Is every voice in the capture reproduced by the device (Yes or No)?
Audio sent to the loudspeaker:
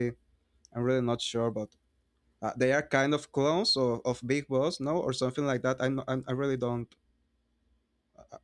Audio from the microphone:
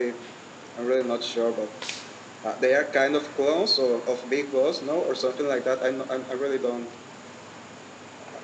Yes